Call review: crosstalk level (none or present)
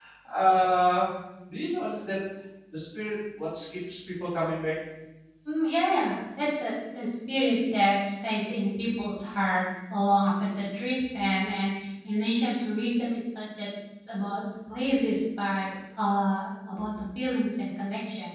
none